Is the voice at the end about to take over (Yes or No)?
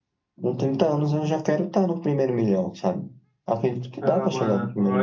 Yes